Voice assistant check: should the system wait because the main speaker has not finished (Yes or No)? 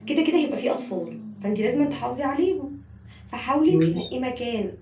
Yes